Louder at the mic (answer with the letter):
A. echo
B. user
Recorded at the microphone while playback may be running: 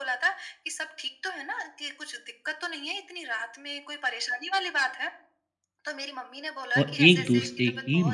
B